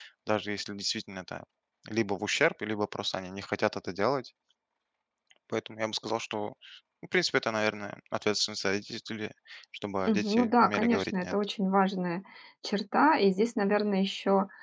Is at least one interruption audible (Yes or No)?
Yes